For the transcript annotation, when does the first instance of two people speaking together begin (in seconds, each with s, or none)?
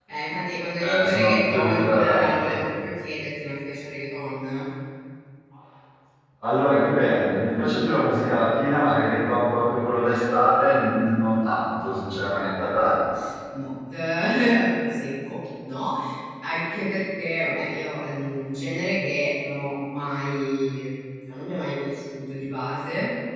0.8 s